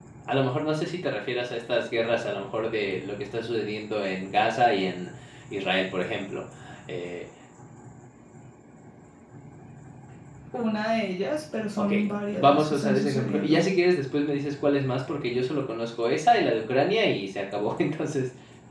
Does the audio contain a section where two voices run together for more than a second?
Yes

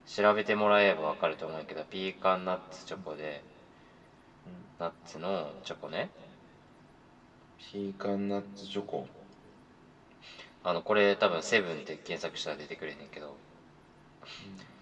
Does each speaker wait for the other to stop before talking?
Yes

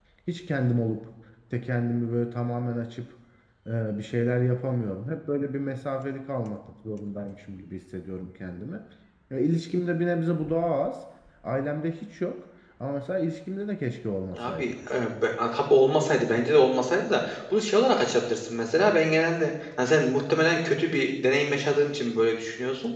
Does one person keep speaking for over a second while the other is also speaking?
No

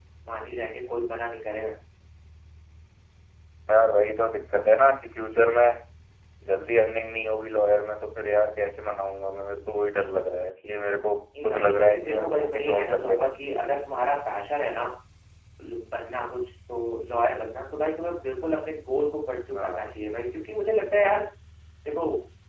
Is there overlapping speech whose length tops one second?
Yes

